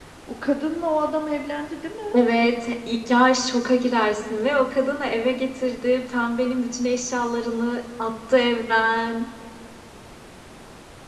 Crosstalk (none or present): none